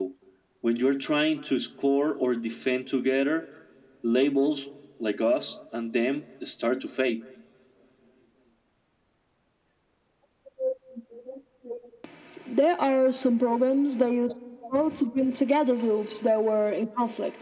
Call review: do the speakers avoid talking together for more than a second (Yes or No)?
Yes